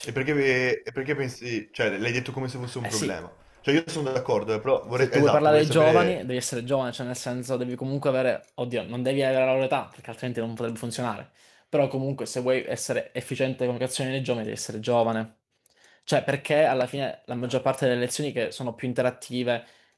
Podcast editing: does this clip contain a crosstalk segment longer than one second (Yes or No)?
Yes